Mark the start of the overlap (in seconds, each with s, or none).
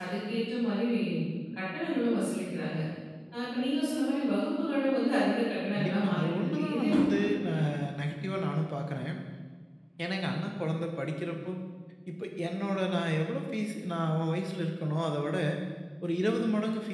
5.8 s